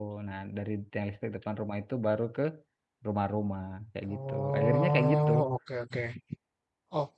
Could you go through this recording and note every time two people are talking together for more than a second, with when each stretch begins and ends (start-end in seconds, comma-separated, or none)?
4.1-5.3